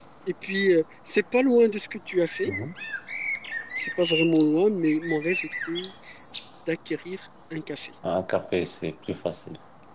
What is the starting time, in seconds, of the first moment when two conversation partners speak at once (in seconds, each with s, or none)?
none